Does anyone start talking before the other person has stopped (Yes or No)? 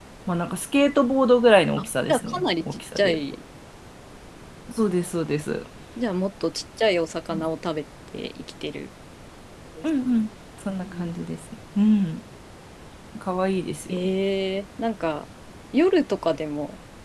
Yes